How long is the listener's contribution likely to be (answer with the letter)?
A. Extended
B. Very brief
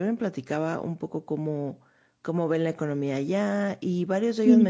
B